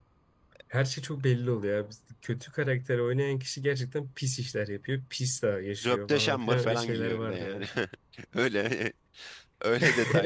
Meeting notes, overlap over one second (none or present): present